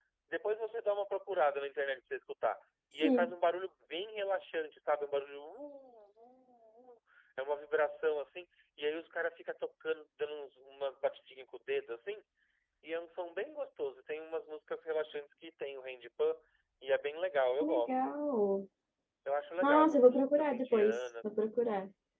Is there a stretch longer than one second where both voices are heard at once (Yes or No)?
Yes